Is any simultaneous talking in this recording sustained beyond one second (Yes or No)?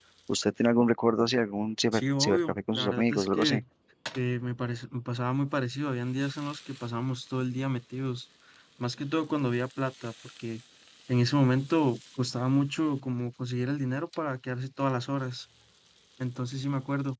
Yes